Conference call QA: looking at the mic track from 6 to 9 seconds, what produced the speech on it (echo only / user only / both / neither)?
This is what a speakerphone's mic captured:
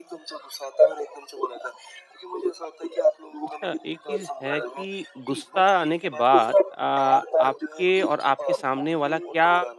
both